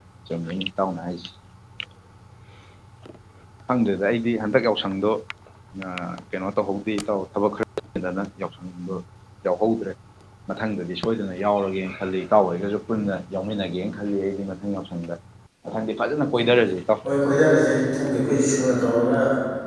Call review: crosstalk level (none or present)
none